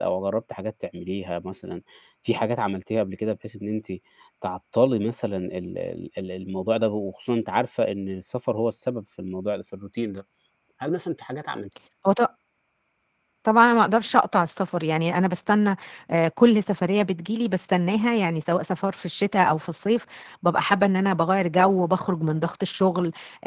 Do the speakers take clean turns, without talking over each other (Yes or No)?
Yes